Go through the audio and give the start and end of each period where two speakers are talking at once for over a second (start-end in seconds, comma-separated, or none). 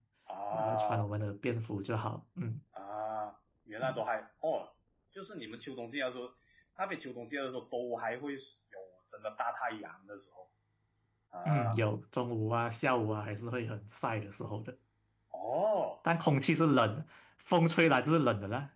none